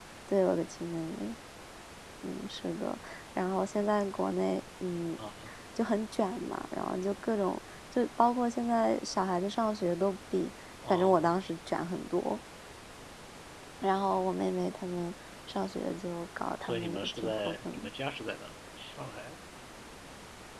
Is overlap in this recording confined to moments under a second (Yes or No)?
No